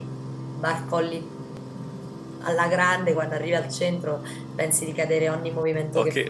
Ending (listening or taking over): taking over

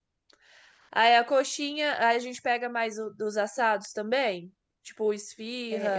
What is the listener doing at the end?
taking over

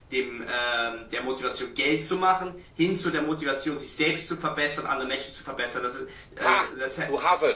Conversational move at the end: taking over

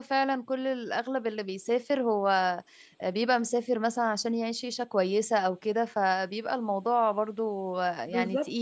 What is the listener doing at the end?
taking over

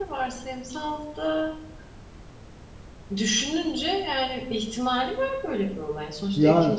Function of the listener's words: listening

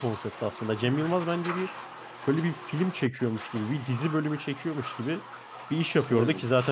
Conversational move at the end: listening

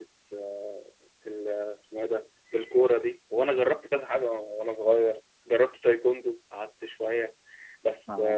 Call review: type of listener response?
listening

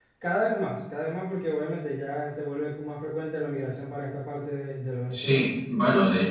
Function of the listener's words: taking over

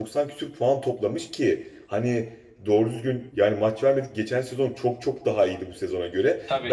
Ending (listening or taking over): listening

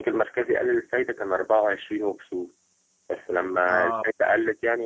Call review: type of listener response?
listening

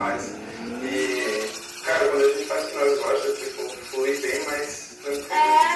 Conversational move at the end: taking over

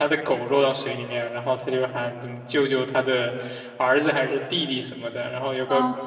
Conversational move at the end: listening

